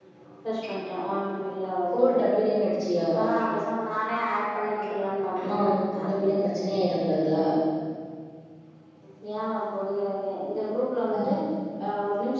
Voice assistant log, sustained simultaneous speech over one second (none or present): none